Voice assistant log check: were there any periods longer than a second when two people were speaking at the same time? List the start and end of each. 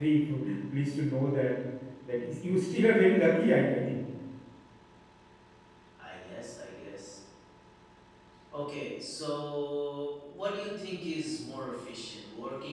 none

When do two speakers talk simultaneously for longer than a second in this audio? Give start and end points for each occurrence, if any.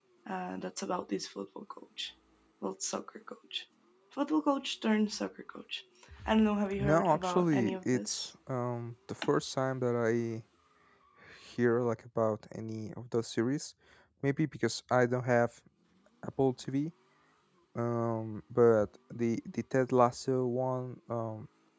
6.8-8.3

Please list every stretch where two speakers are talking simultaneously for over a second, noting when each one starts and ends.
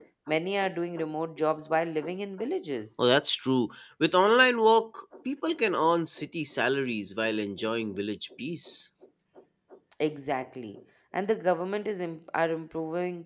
none

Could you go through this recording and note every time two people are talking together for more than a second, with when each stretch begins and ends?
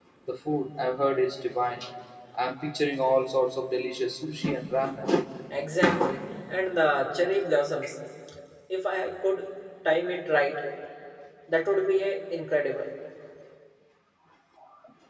none

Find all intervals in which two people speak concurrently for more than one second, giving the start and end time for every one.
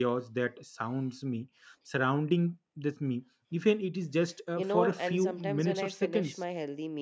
4.6-6.4

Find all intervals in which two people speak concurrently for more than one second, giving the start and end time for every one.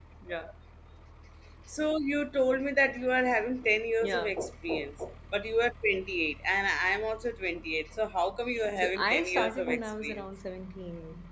8.8-10.2

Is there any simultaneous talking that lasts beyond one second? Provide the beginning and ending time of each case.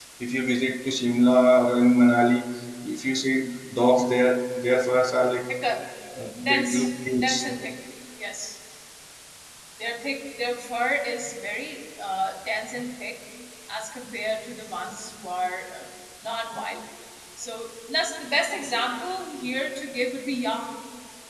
6.4-7.7

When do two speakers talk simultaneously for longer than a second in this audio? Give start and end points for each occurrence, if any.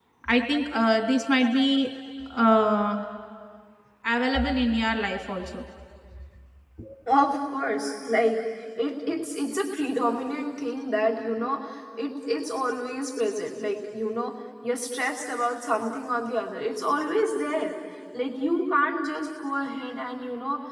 none

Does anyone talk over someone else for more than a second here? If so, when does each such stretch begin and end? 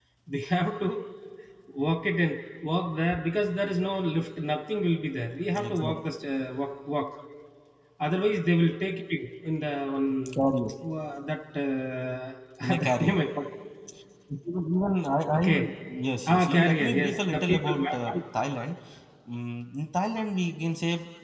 16.3-18.1

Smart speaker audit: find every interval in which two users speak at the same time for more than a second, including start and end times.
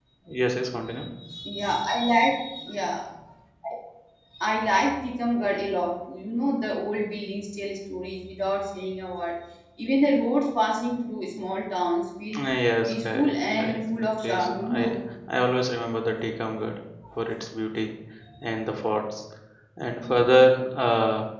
12.9-15.0

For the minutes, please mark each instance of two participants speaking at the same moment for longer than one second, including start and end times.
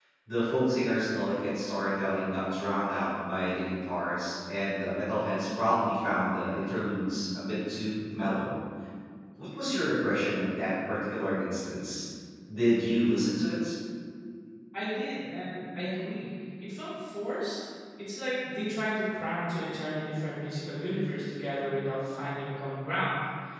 none

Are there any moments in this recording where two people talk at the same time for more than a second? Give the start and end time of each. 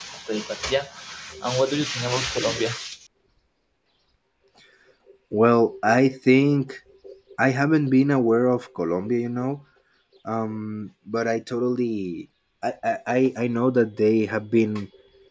none

